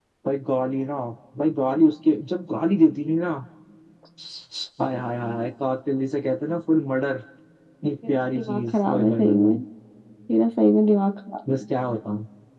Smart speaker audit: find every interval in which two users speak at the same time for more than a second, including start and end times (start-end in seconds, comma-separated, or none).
8.1-9.6